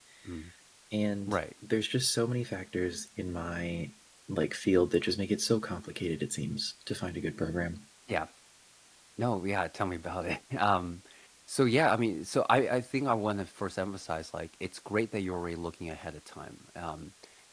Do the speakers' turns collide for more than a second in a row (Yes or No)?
No